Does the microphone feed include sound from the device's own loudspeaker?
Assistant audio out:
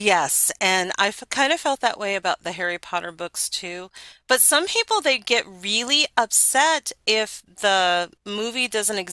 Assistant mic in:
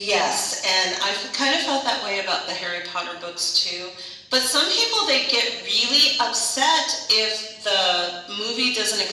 Yes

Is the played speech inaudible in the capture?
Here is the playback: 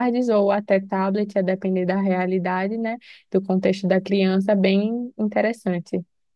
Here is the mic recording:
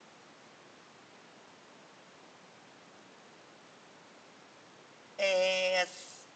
Yes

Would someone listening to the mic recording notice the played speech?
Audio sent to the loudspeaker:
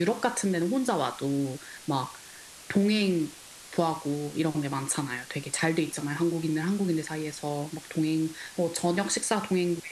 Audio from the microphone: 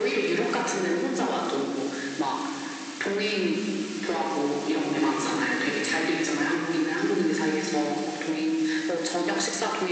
Yes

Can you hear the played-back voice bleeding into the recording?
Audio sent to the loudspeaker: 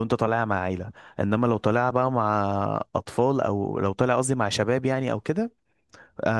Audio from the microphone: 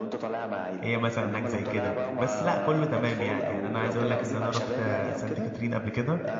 Yes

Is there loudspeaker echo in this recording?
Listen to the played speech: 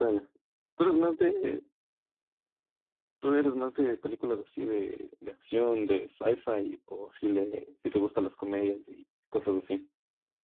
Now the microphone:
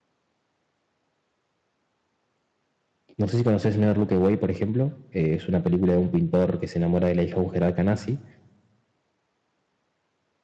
No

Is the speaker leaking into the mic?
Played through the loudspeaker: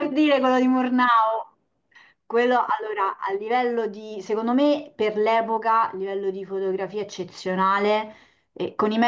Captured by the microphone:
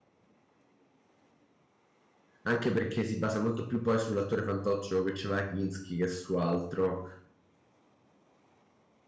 No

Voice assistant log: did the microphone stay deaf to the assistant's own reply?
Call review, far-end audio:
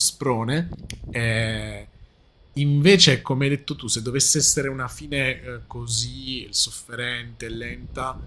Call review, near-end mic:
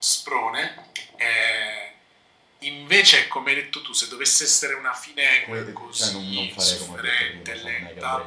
No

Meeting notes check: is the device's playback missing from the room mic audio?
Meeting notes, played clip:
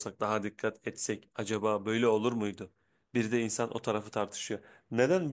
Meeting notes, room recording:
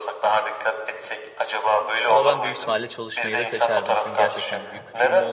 No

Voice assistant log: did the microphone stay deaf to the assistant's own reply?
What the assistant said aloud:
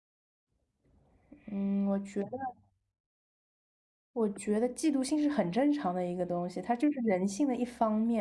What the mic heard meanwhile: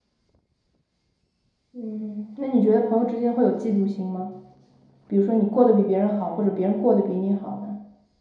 Yes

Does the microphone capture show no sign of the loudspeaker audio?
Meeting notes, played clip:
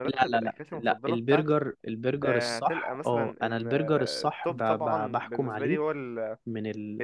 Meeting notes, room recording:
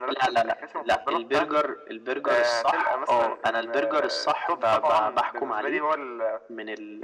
No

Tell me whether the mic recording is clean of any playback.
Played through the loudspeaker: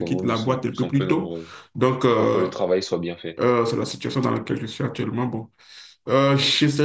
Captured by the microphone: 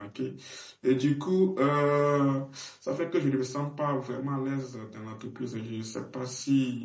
Yes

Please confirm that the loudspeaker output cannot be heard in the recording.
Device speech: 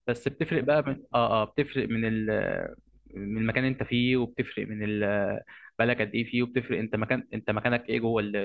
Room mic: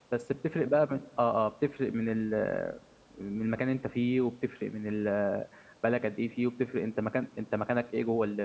No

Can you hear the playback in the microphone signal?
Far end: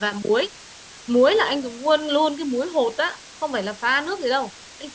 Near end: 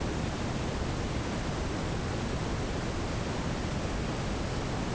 No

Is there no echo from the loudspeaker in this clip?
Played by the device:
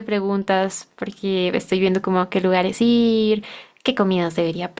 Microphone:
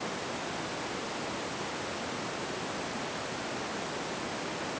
Yes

